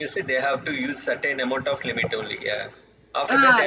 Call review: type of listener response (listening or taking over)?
taking over